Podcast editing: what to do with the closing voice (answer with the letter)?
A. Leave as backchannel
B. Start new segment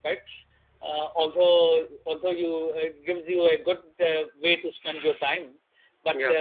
A